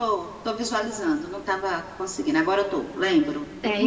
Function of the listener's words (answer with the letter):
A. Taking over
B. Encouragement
A